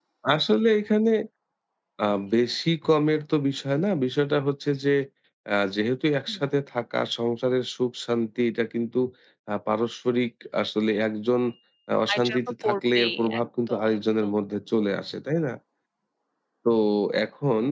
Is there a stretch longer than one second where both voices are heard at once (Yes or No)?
Yes